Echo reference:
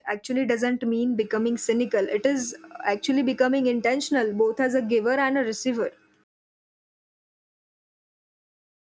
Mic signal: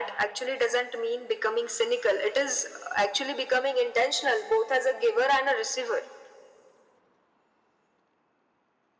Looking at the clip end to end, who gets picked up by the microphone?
echo only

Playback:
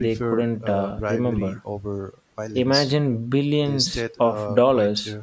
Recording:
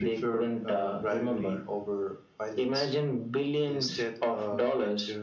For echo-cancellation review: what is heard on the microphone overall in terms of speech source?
echo only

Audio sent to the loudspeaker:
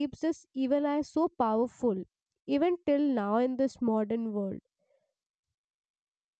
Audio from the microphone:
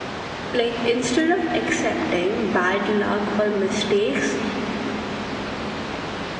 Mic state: user only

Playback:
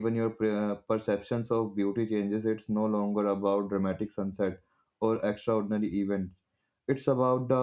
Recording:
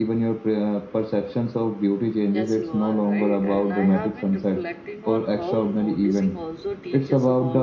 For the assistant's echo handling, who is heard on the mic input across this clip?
both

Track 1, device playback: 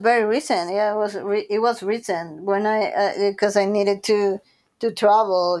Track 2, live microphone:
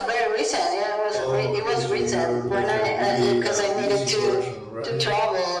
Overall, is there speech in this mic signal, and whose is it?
both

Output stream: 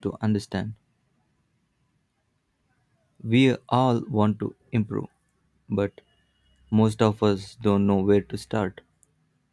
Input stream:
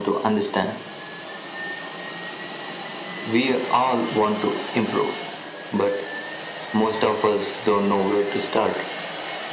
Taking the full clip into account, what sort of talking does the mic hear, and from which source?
echo only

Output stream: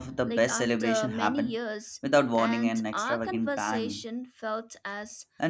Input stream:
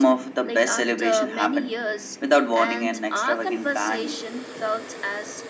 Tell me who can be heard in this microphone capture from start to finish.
echo only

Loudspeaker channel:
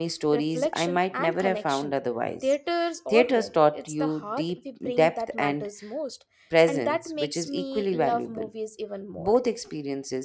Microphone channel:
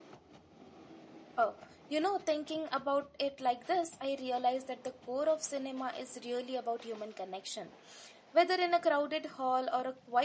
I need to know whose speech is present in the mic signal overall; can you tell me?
user only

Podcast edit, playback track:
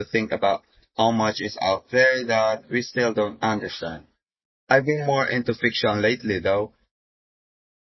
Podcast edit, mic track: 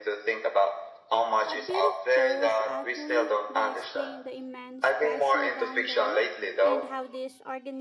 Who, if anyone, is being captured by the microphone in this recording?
both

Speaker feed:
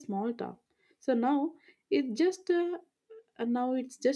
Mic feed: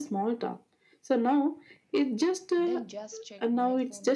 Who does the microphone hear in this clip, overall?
both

